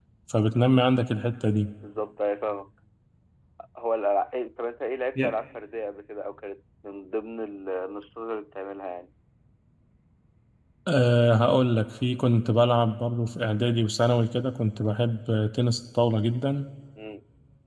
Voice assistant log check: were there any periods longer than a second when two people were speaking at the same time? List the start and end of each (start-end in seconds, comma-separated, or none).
none